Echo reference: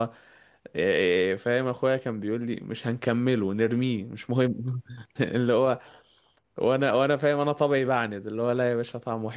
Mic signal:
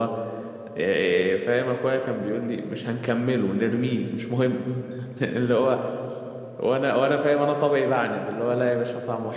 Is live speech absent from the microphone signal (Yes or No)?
Yes